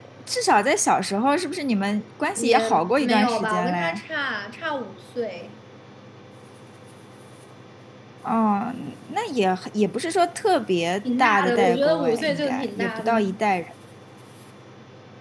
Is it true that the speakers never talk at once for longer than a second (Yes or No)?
No